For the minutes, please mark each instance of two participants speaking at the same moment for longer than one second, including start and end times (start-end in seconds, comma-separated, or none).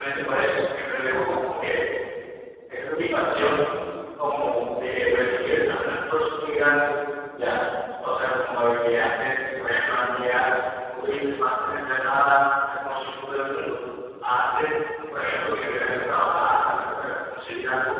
none